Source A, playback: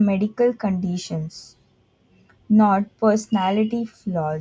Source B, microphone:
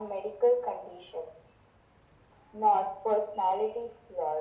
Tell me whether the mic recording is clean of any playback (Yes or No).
No